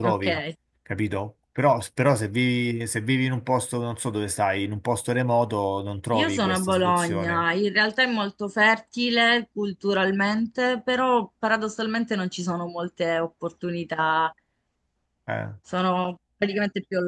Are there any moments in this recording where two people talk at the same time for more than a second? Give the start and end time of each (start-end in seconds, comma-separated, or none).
6.1-7.4